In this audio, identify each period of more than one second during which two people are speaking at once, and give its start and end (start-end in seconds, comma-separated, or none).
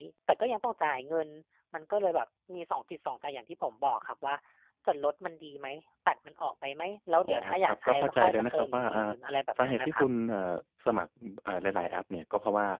7.2-9.1